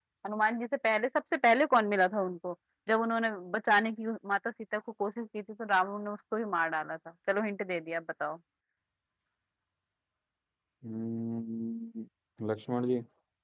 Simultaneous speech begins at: none

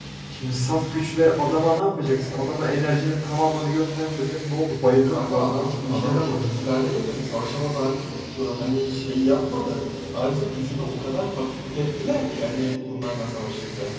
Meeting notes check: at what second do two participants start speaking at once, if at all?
5.0 s

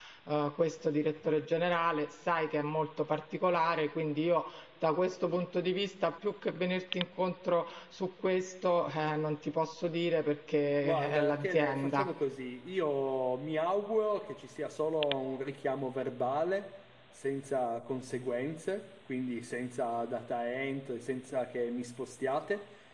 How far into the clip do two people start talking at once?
10.8 s

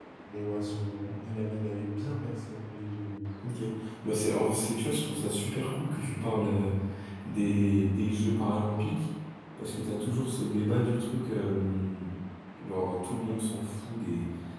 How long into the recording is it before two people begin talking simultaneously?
none

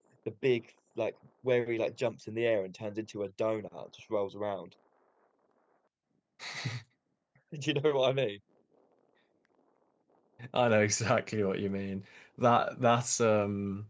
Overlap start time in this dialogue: none

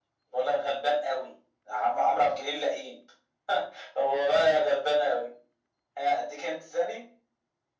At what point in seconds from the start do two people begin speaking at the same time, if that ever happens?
none

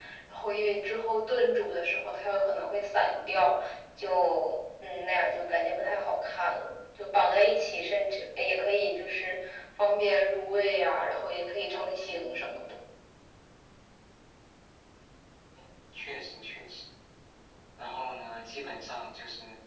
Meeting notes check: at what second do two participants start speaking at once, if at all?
none

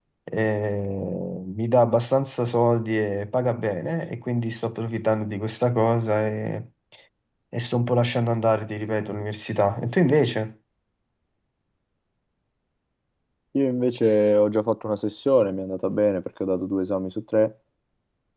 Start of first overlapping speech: none

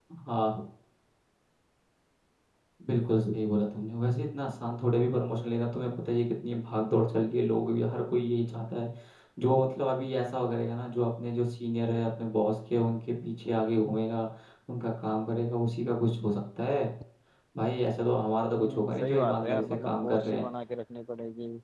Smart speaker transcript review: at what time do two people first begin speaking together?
18.5 s

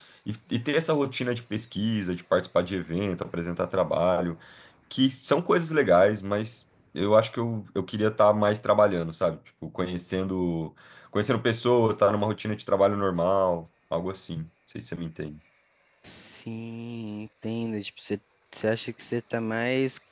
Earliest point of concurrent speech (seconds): none

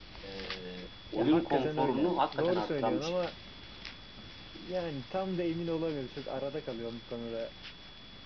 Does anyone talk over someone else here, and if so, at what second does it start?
1.2 s

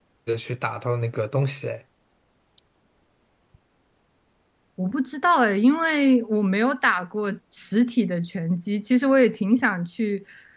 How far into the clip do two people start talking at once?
none

